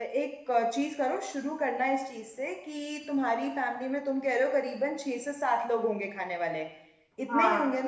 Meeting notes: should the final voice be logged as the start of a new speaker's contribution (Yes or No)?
Yes